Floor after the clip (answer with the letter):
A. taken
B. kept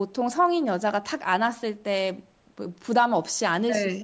A